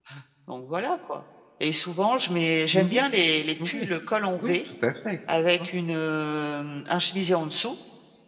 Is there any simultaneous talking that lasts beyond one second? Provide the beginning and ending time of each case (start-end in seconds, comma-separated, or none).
none